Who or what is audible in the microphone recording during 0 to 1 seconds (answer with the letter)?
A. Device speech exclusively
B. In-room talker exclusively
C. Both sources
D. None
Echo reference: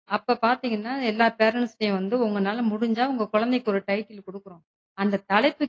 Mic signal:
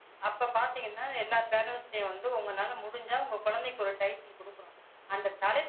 A